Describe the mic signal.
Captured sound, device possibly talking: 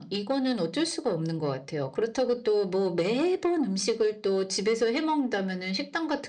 echo only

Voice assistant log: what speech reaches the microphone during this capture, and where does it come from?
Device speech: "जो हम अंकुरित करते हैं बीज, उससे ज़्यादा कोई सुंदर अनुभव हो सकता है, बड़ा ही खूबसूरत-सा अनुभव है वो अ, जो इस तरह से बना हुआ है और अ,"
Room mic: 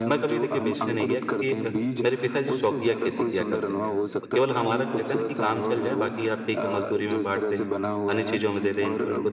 both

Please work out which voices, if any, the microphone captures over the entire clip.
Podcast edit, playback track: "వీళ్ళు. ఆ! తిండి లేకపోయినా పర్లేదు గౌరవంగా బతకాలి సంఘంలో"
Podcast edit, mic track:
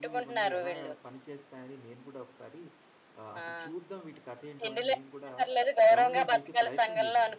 both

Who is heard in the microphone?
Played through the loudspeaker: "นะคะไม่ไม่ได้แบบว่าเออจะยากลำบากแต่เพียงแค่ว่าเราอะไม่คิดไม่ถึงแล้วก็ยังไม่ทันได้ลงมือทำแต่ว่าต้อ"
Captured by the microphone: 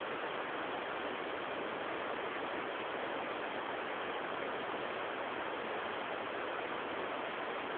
neither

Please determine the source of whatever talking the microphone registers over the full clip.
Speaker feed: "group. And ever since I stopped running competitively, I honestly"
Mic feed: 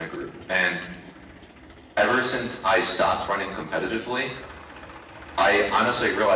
echo only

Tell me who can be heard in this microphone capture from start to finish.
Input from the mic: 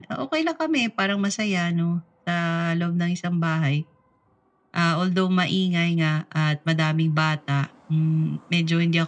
echo only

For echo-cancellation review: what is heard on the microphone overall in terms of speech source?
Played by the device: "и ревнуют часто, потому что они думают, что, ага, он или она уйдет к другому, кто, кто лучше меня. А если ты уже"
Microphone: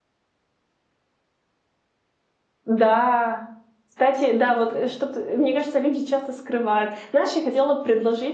user only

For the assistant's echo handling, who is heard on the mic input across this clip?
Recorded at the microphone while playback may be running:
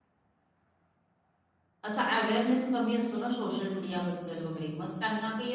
user only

